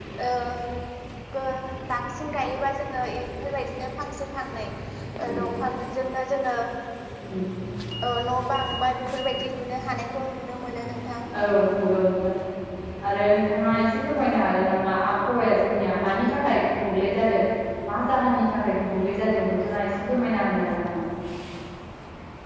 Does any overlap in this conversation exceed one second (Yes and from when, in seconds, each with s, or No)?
No